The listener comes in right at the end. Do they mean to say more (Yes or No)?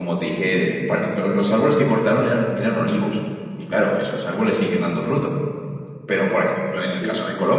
No